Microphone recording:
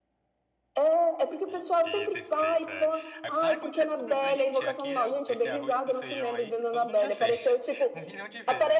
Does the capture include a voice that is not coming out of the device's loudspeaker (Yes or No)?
Yes